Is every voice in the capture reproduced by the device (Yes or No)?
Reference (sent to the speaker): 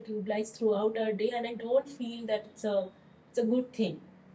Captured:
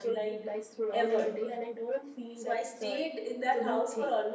No